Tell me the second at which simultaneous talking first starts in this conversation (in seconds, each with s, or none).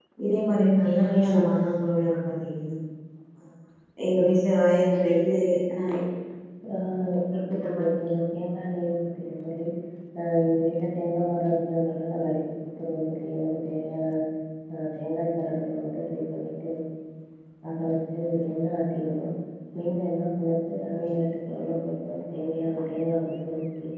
none